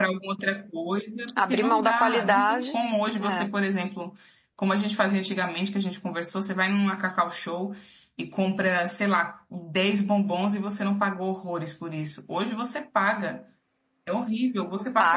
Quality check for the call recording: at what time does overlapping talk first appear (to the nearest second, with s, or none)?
1 s